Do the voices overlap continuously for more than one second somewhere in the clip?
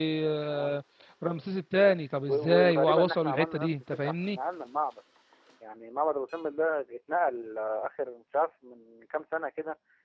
Yes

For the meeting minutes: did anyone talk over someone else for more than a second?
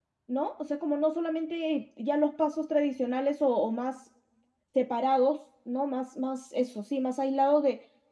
No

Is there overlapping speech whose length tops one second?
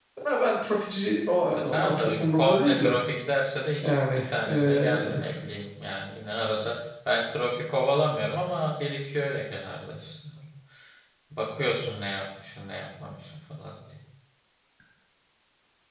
Yes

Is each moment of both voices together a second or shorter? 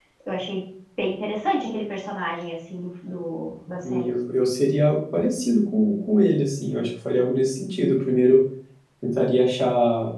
Yes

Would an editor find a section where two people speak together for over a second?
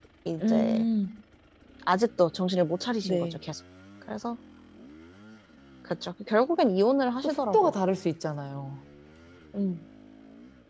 No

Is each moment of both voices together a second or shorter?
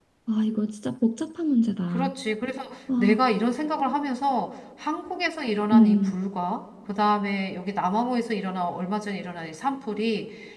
Yes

